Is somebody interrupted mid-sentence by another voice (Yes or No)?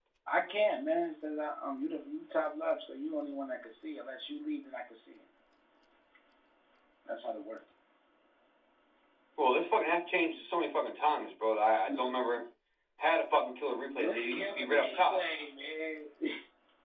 Yes